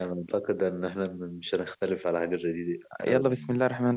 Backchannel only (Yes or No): No